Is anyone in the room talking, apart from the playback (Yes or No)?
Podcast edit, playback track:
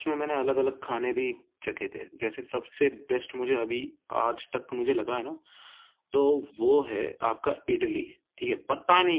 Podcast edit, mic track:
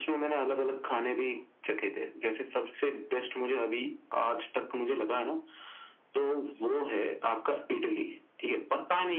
No